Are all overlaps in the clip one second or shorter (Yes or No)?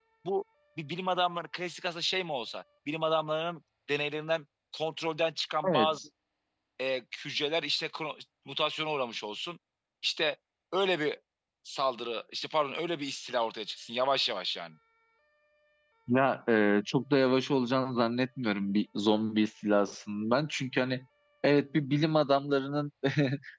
Yes